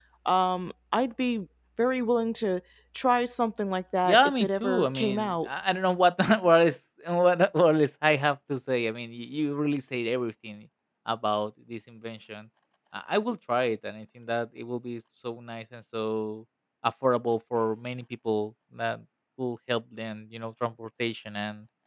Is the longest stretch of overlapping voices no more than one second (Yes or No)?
No